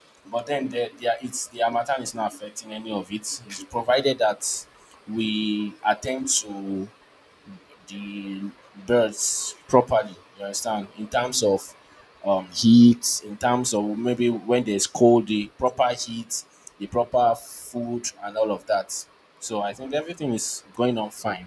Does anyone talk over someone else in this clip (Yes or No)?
No